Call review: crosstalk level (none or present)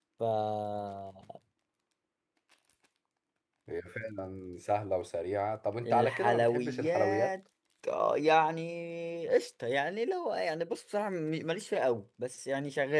present